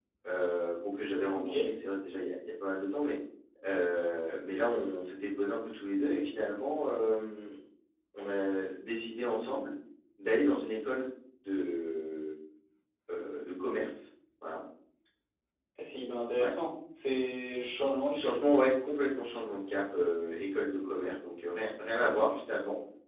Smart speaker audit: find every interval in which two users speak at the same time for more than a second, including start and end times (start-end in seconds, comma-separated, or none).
none